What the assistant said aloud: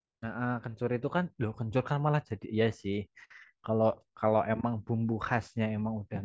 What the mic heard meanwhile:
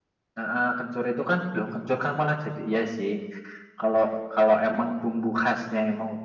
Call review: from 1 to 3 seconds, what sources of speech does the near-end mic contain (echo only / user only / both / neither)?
echo only